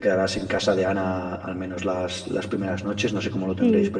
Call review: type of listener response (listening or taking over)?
taking over